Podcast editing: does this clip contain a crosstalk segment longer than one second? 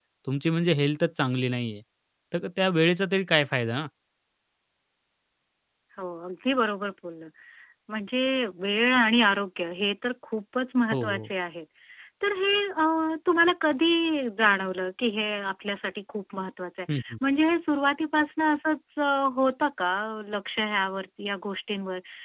No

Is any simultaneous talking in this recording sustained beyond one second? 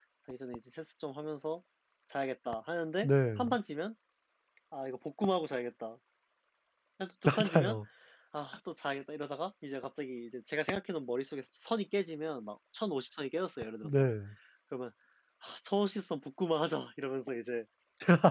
No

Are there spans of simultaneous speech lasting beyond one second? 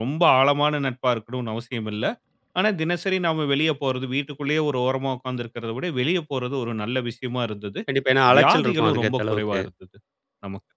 Yes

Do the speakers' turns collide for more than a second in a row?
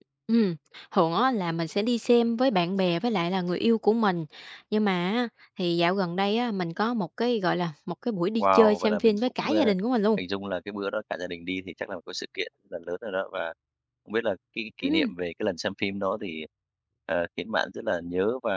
Yes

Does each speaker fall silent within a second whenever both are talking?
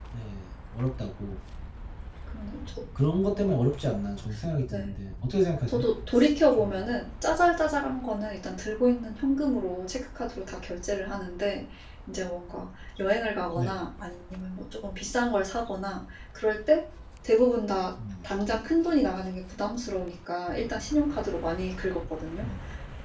Yes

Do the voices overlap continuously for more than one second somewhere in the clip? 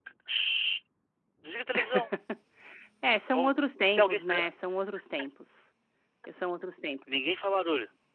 No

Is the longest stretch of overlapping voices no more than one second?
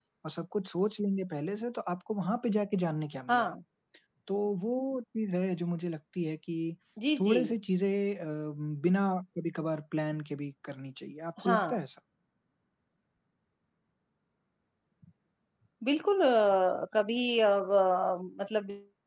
Yes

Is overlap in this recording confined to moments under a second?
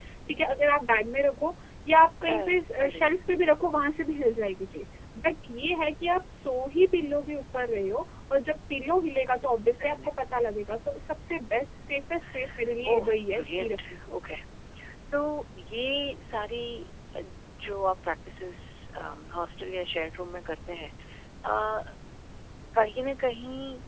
No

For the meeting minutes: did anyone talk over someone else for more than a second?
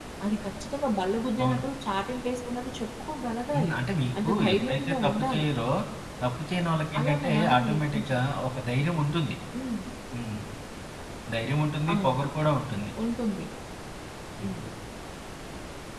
Yes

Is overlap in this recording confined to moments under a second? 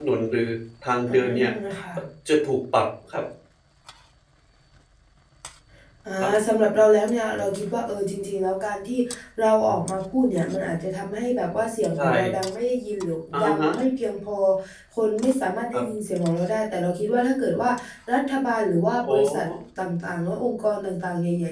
Yes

